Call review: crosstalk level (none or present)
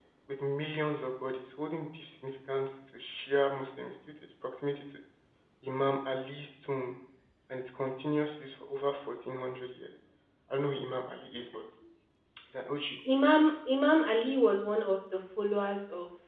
none